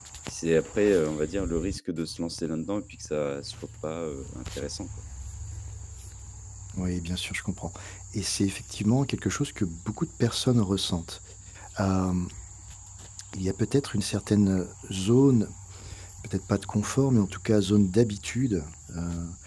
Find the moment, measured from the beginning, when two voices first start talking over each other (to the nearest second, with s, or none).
none